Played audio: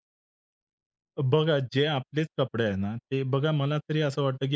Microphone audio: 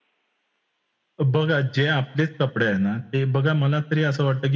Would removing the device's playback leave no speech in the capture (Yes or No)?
Yes